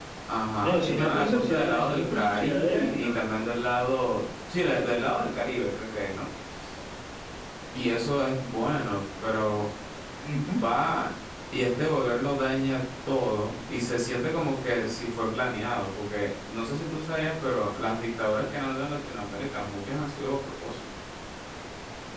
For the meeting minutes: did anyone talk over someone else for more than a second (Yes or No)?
Yes